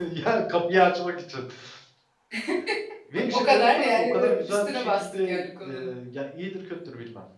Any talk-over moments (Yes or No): Yes